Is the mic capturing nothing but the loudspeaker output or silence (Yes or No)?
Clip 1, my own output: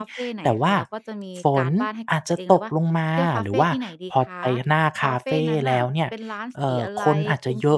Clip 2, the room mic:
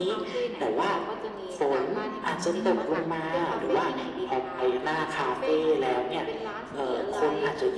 No